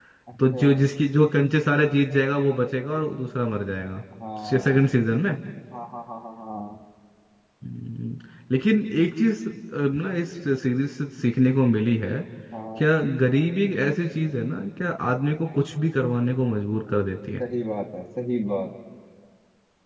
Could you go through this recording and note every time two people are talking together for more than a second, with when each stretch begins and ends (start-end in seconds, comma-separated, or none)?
none